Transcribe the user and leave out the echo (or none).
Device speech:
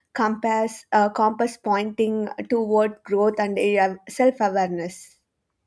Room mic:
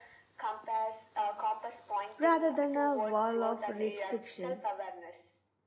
rather than a wall of restriction.